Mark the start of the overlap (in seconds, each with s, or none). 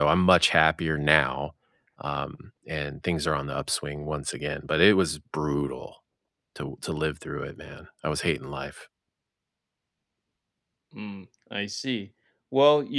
none